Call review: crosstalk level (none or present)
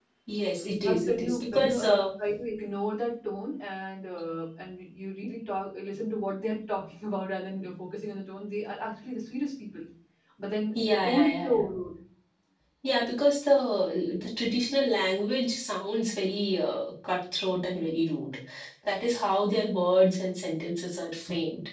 present